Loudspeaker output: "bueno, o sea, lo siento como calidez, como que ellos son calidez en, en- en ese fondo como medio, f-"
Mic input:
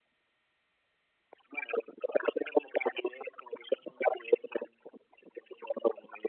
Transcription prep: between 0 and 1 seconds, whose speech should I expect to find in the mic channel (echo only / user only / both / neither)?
neither